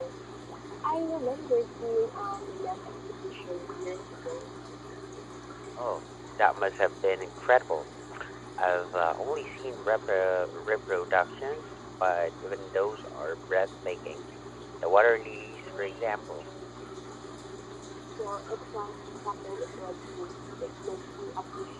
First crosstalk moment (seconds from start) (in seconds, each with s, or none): none